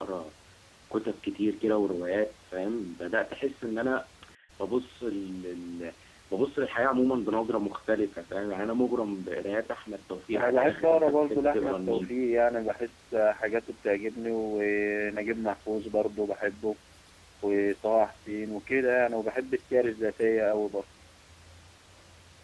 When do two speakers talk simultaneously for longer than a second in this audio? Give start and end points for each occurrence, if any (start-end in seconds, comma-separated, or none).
10.3-12.2